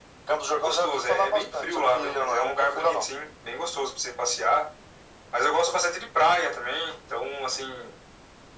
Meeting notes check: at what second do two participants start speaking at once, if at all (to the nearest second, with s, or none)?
1 s